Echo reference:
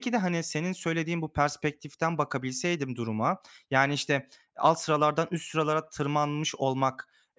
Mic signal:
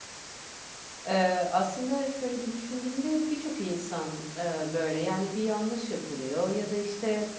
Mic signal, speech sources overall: user only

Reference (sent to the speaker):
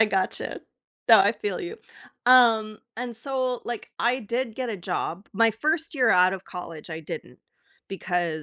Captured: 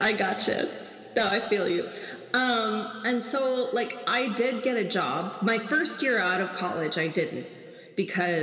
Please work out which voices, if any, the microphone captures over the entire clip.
echo only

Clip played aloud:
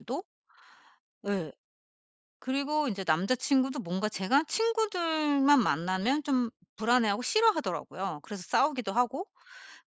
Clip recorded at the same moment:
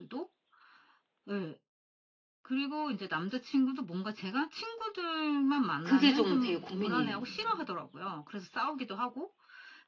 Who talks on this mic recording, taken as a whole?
both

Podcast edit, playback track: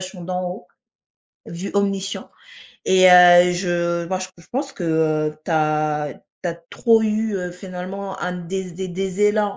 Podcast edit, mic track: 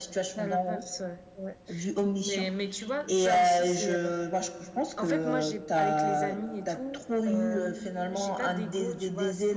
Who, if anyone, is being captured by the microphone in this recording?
both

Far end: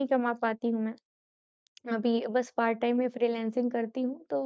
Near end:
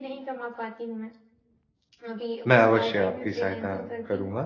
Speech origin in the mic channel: both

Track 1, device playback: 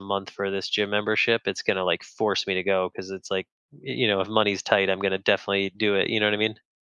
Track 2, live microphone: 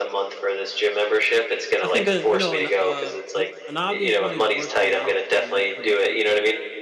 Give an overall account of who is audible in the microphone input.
both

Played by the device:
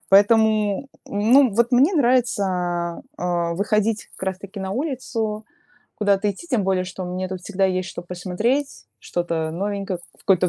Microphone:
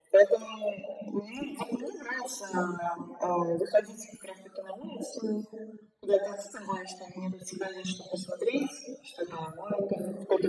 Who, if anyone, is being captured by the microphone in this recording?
echo only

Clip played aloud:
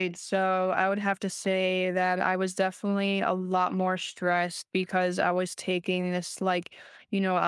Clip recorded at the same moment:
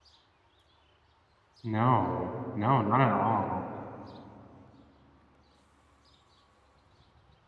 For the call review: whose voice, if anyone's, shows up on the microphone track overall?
user only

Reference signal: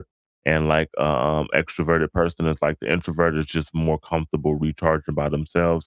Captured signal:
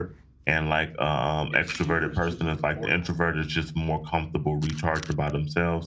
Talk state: both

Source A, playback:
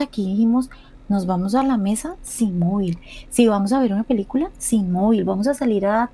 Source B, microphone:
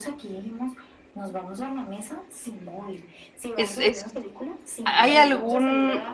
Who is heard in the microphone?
both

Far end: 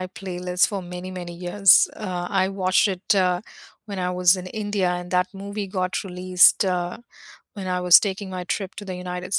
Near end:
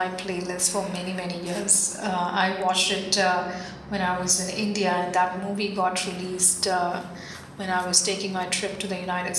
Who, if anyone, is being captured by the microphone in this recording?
echo only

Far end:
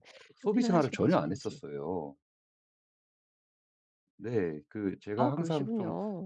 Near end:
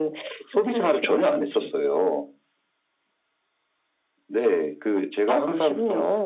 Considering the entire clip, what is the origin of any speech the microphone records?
echo only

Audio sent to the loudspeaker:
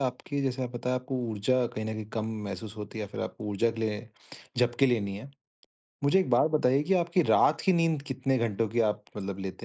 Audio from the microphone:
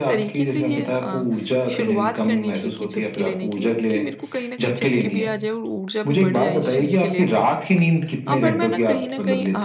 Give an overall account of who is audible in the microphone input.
both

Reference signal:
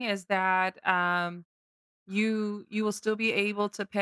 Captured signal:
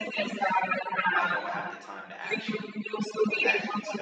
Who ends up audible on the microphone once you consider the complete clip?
both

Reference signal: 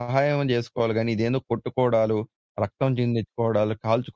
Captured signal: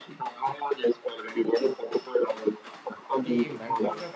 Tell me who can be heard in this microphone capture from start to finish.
both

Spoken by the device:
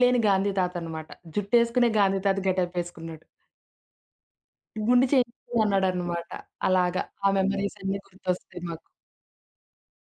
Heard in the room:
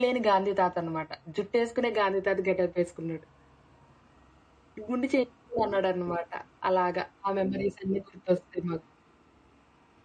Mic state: echo only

